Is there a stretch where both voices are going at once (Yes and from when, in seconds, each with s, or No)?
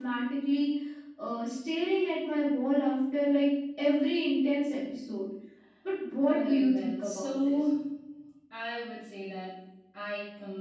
Yes, from 6.2 s